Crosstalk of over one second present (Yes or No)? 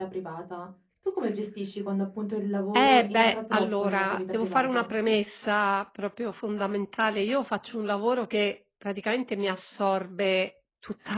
Yes